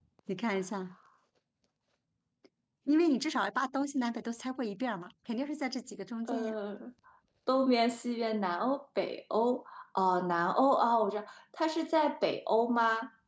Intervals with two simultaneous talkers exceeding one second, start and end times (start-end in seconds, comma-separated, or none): none